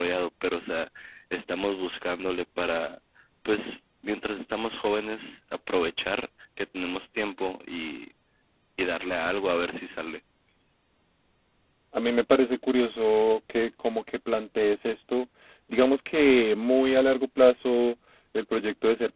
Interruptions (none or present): none